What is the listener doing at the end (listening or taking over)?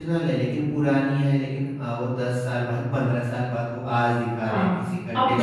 taking over